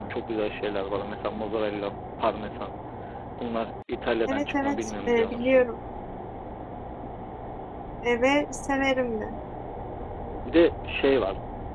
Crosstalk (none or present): present